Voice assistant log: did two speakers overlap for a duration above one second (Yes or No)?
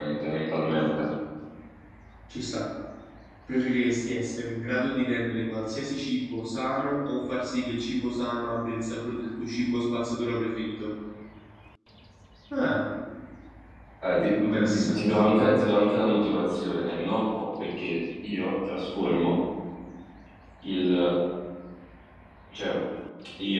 Yes